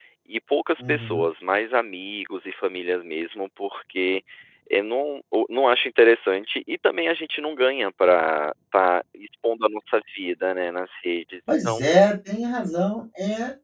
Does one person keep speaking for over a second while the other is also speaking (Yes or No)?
No